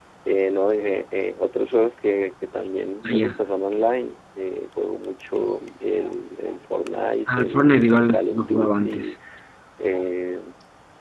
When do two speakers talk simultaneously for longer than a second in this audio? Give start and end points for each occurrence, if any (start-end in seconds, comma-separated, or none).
7.3-9.1